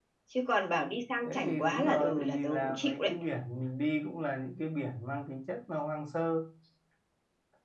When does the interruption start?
1.2 s

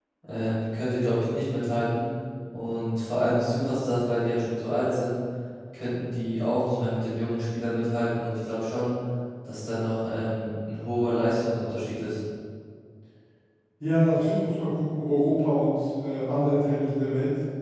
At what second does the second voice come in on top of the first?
none

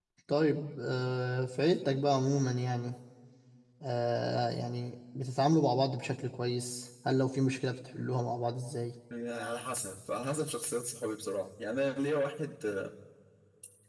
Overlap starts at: none

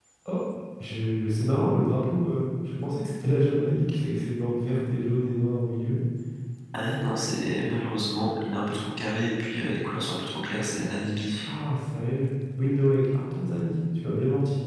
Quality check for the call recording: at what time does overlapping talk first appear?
none

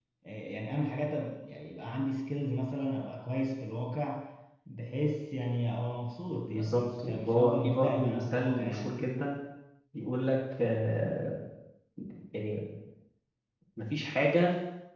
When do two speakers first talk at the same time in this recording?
6.5 s

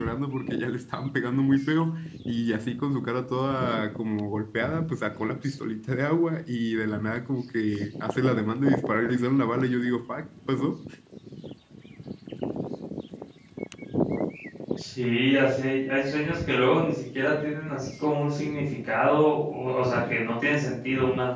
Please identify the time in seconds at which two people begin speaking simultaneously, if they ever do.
none

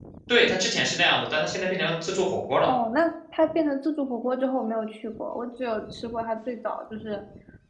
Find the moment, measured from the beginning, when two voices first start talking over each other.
none

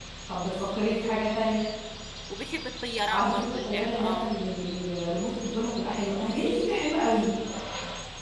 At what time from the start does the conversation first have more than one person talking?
3.1 s

